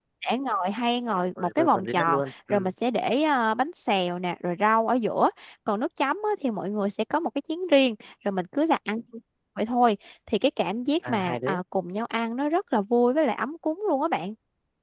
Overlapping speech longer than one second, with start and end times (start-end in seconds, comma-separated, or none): 1.4-2.7